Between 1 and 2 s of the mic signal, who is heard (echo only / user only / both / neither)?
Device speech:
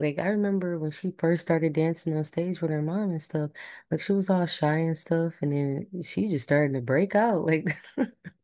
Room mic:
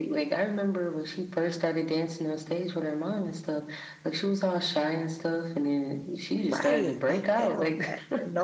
echo only